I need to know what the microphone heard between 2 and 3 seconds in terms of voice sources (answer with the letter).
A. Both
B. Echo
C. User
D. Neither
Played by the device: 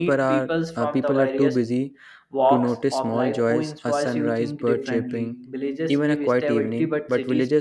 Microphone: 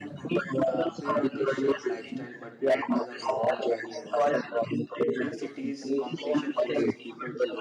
A